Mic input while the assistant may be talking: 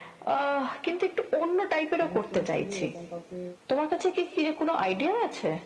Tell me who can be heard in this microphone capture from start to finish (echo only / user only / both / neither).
both